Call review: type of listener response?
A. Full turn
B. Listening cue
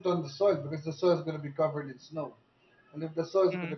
B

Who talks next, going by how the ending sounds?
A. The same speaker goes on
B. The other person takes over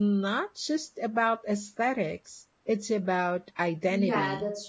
B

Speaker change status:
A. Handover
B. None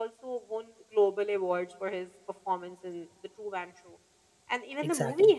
B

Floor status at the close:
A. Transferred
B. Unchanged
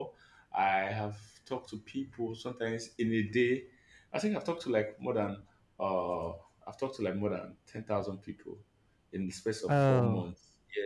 B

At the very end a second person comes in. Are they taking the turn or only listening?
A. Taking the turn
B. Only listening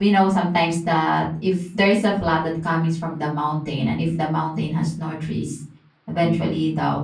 B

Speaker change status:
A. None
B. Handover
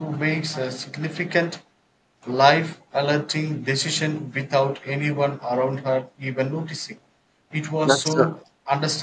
A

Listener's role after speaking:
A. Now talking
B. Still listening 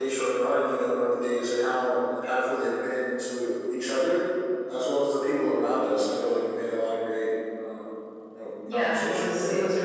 A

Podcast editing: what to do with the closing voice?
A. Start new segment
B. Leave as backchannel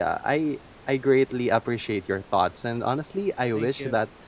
B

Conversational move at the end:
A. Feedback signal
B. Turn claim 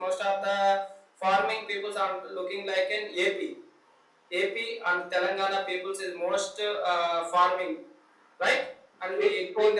B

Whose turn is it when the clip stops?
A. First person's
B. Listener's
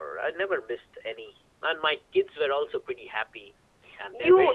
B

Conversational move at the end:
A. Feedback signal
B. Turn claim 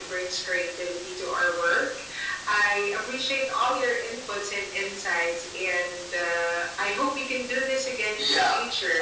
B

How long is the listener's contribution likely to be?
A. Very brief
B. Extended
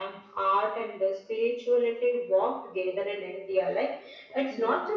A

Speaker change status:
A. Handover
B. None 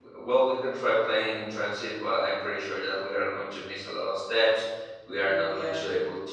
B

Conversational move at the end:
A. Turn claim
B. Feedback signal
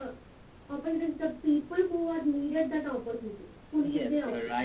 A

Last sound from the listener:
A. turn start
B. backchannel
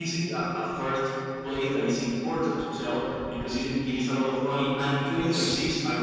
B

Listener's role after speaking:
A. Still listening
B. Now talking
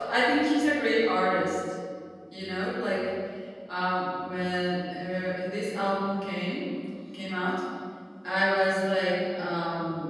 A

